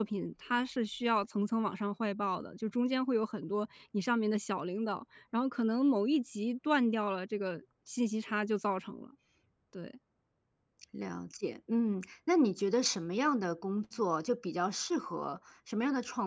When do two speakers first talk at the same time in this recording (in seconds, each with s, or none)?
none